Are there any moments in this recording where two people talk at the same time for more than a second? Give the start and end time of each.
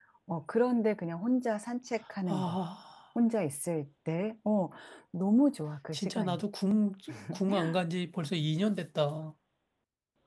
none

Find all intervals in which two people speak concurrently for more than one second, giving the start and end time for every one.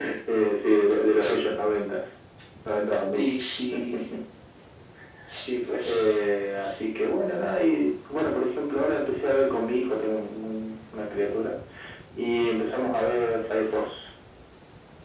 none

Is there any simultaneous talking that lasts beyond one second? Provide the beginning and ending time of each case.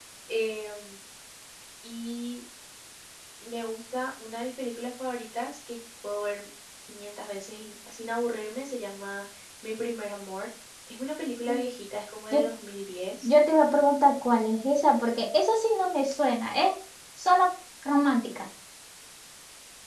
none

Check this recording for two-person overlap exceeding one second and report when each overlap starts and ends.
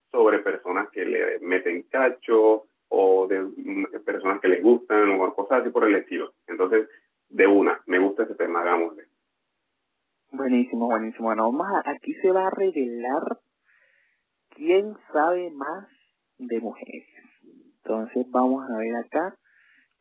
none

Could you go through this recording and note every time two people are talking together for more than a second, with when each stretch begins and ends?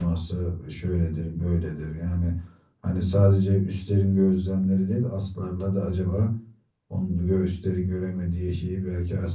none

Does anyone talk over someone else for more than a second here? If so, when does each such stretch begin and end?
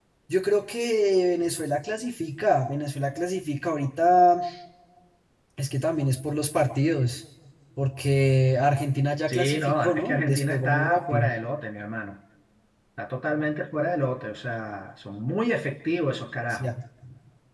9.3-11.3

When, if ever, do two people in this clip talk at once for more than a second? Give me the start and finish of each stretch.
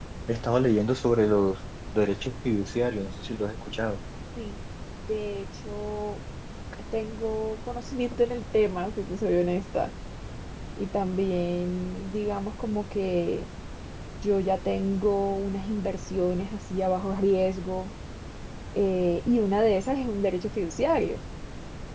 none

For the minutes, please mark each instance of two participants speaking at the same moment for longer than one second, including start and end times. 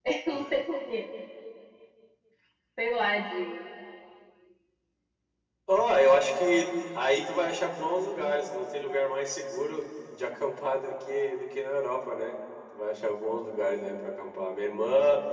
none

